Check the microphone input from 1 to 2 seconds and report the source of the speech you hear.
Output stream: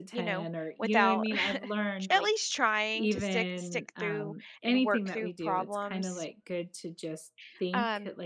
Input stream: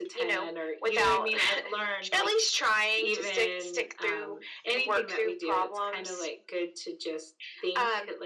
echo only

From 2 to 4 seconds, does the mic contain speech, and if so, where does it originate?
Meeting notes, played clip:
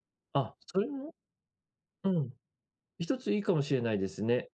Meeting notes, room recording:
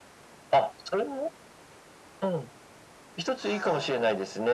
both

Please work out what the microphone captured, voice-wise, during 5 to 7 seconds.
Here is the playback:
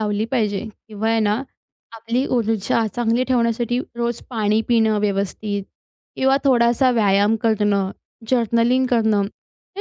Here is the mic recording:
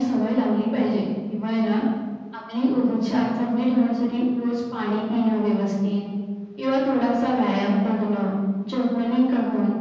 echo only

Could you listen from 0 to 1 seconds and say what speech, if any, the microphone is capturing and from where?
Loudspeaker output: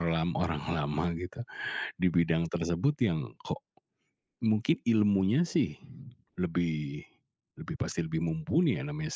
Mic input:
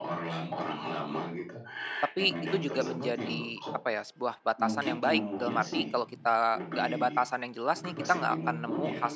echo only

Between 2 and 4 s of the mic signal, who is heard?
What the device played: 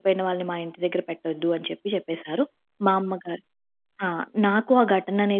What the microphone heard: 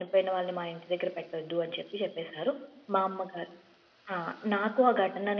echo only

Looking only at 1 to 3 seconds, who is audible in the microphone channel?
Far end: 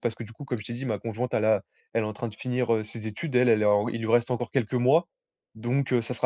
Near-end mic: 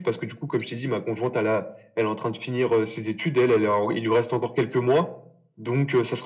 echo only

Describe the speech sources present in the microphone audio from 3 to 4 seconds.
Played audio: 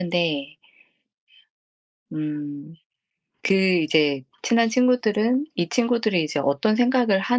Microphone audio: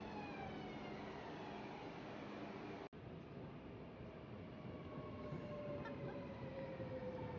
neither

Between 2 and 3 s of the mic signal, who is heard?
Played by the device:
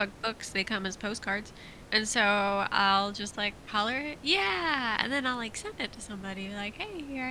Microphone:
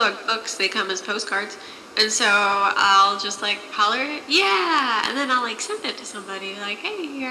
echo only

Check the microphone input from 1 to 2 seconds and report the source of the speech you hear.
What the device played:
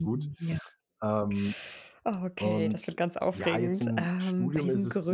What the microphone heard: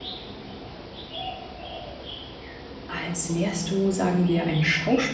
neither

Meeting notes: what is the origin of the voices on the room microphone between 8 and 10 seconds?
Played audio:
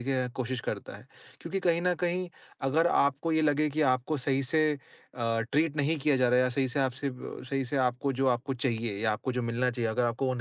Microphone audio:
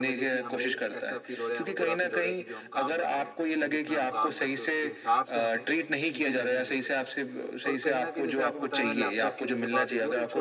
both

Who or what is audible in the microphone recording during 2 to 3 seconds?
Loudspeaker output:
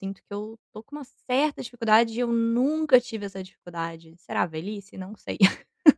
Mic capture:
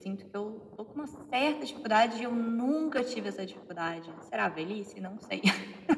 echo only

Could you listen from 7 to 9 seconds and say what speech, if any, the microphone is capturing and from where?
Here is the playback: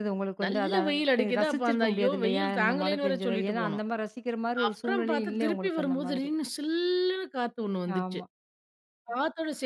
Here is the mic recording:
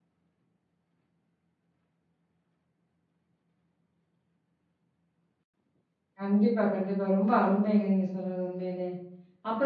user only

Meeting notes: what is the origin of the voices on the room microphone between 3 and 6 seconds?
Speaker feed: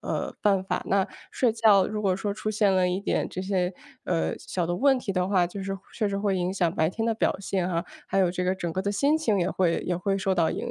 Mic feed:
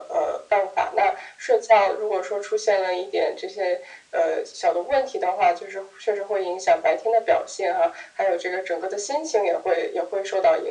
echo only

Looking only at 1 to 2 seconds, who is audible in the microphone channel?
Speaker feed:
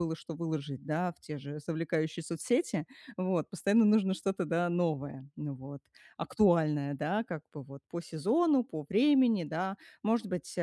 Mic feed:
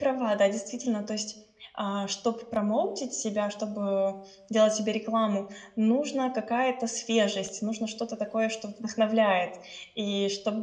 user only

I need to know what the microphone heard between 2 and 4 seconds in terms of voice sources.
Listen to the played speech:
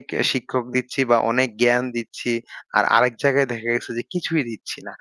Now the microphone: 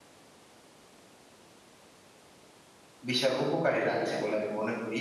user only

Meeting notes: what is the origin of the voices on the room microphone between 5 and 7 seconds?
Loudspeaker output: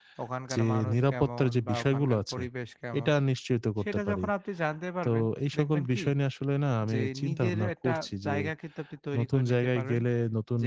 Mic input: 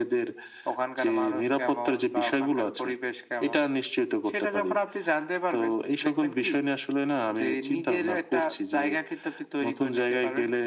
echo only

